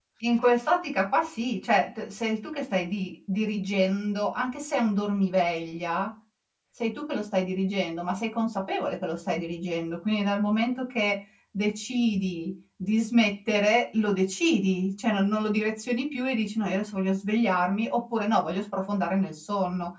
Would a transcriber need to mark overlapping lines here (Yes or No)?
No